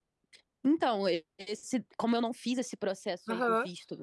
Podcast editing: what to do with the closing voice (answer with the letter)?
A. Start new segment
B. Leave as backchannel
B